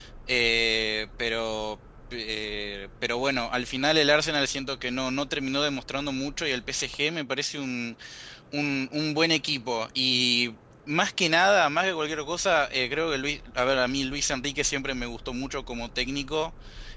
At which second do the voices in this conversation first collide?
none

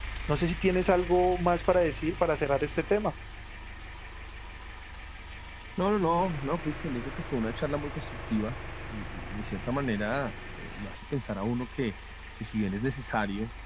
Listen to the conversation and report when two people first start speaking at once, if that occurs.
none

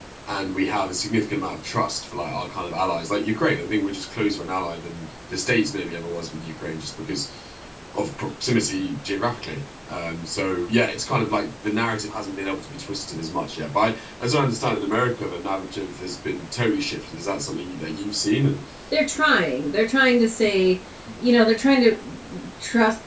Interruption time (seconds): none

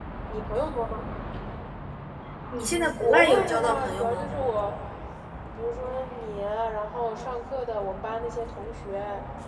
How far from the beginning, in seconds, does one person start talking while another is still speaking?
2.7 s

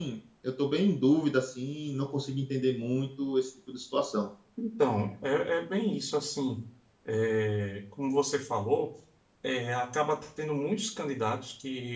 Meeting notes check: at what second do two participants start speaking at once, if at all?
none

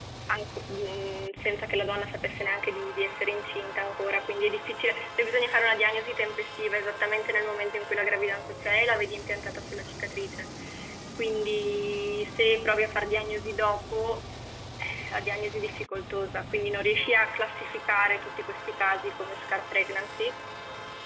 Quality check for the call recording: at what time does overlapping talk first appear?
none

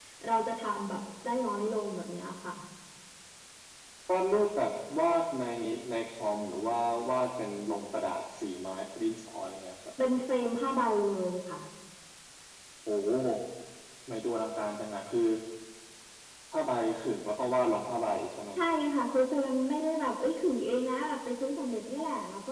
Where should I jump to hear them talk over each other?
none

